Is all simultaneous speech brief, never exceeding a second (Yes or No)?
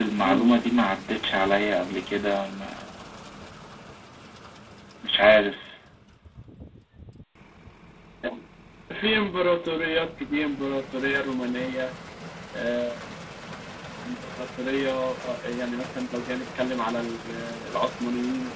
Yes